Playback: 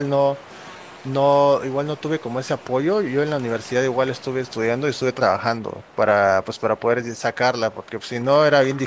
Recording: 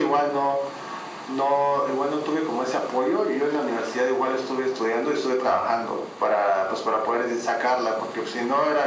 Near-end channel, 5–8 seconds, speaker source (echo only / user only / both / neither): echo only